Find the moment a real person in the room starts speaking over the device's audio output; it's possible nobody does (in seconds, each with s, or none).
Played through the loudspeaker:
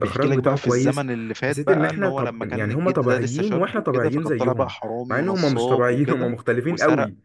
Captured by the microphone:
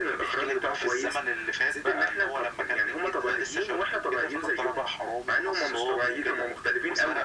none